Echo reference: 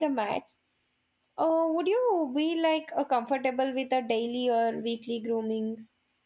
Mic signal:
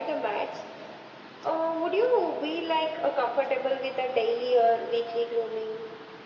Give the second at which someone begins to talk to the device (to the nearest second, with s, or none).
none